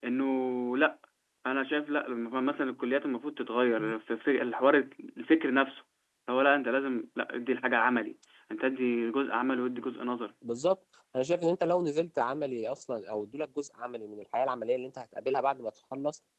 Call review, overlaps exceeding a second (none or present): none